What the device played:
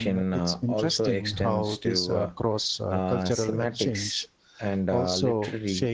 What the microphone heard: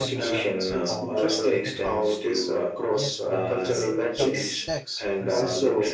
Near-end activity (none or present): present